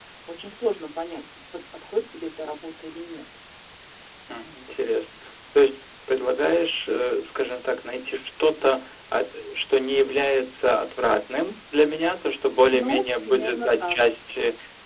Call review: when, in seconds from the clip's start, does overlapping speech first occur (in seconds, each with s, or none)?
12.7 s